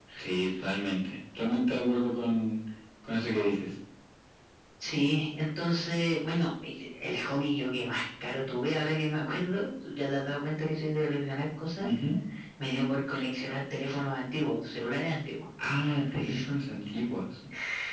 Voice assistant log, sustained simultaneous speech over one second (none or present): none